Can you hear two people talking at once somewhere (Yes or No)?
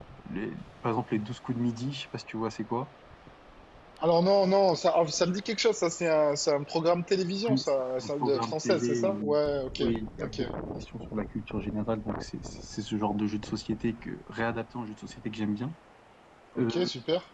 Yes